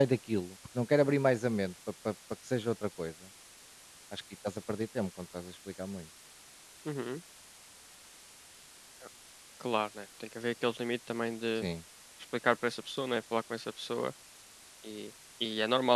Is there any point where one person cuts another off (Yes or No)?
No